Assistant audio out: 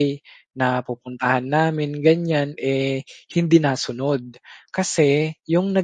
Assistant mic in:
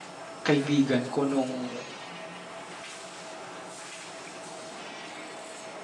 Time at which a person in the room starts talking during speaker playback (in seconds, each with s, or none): 0.4 s